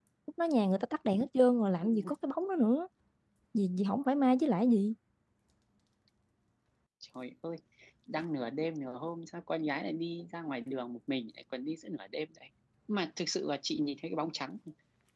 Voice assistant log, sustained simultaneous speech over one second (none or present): none